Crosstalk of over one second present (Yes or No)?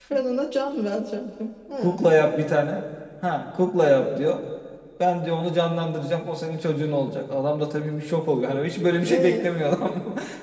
No